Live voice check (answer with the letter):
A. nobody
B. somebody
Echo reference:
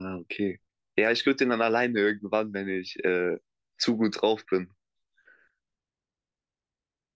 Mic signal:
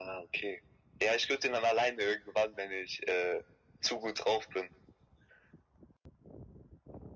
A